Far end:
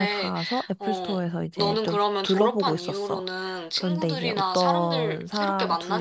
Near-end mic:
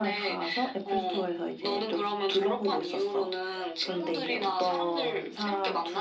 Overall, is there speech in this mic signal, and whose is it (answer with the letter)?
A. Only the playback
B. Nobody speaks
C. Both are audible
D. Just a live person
A